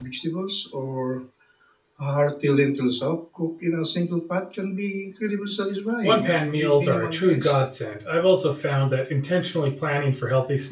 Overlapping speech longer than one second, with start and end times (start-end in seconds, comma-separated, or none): 6.0-7.6